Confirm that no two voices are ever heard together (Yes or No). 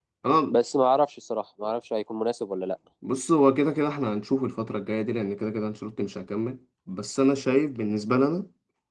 Yes